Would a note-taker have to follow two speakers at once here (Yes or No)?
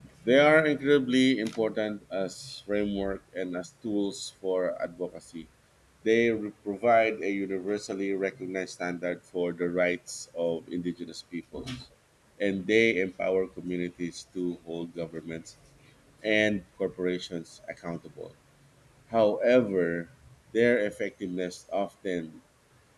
No